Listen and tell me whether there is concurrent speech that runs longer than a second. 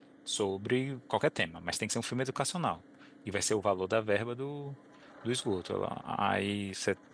No

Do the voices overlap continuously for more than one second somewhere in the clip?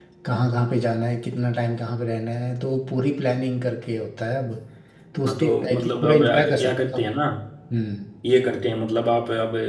Yes, from 5.3 s

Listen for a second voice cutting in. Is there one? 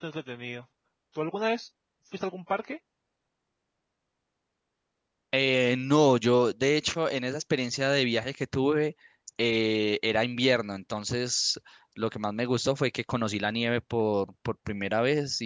No

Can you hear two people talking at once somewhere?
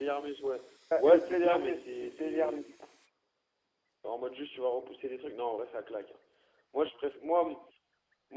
Yes, from 1.0 s

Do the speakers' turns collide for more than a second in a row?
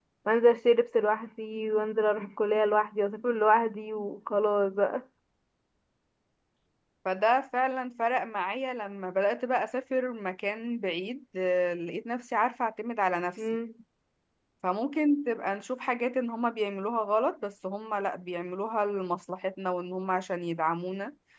No

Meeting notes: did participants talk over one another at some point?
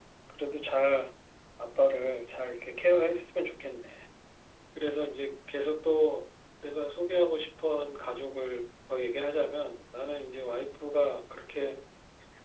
No

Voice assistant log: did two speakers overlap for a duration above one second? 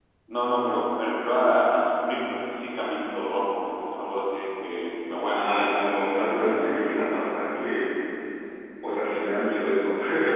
No

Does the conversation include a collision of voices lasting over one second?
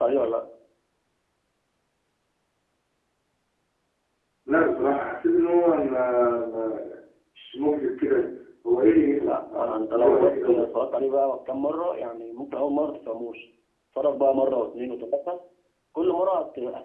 Yes, from 9.3 s

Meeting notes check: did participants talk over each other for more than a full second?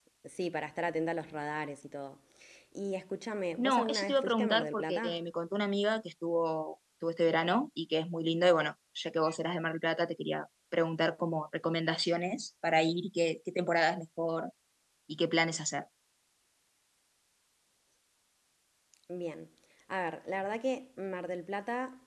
Yes, from 3.6 s

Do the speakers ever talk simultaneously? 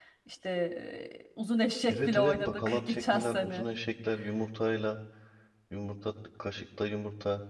Yes, from 1.9 s

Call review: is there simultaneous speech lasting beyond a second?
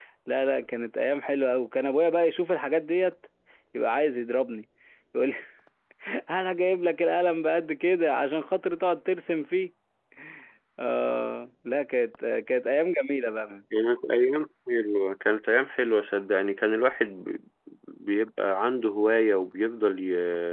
No

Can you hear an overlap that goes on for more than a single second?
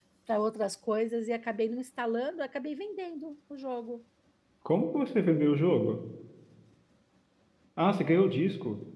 No

